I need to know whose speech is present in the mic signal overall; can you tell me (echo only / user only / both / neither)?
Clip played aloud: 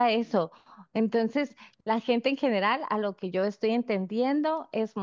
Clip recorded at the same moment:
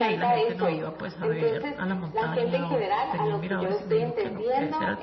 both